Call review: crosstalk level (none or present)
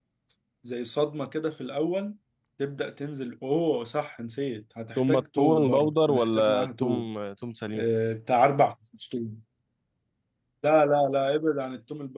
present